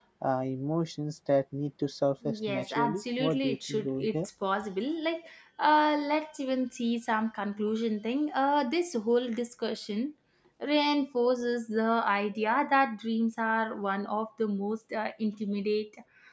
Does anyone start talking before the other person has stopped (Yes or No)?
Yes